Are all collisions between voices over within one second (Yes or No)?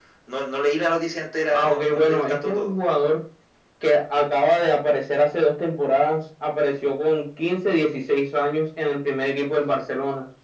No